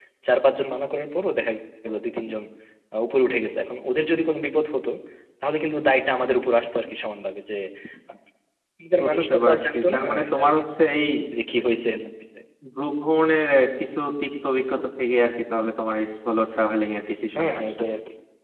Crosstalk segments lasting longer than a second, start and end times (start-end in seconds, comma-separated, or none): 9.0-10.6